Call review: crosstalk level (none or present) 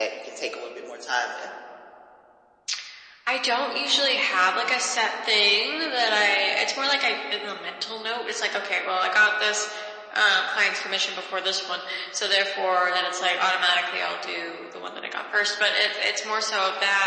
none